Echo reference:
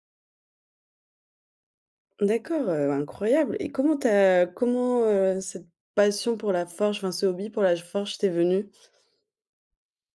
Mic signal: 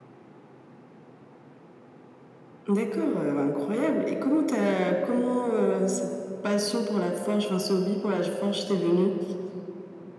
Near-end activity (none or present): none